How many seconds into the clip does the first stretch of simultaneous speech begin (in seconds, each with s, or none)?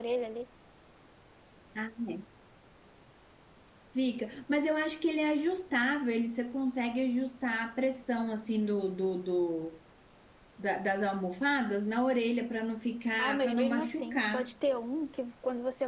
13.2 s